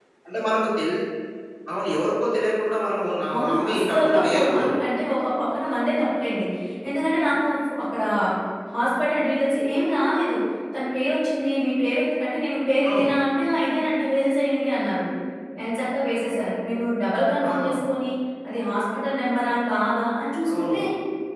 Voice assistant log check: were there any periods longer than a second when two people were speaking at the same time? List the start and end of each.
3.3-4.7

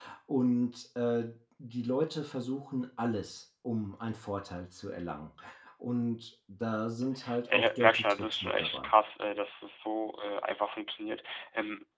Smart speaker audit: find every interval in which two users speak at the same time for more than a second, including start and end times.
7.5-8.9

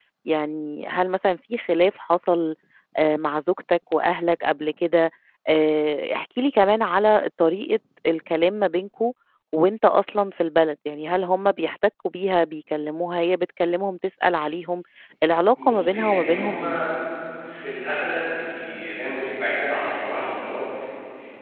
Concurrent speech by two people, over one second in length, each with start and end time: 15.6-16.8

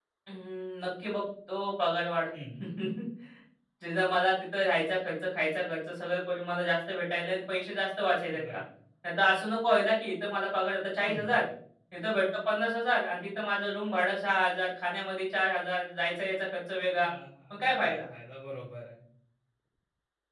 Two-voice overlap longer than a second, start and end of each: none

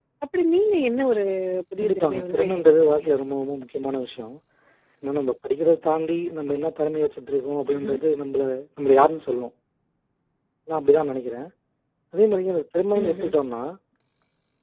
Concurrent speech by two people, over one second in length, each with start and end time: 1.8-3.0

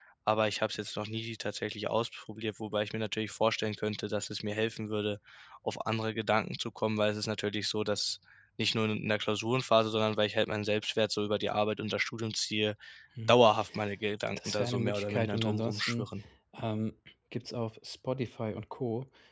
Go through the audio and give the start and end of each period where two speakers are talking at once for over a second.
14.4-16.1

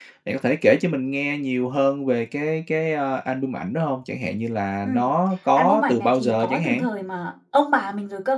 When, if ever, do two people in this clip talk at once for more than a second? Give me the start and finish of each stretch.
5.6-6.8

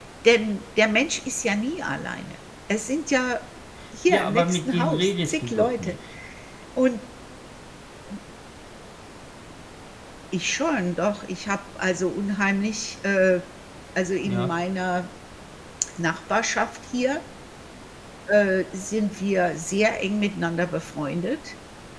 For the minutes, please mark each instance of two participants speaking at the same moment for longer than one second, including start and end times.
4.1-5.9

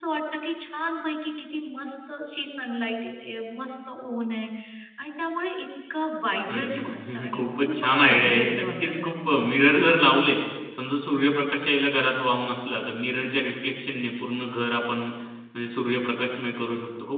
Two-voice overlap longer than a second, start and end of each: 6.5-9.1

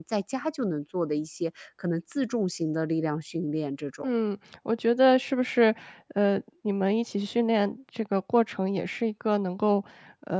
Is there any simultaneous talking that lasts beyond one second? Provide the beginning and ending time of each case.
none

